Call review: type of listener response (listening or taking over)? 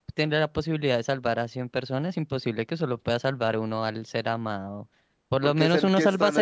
taking over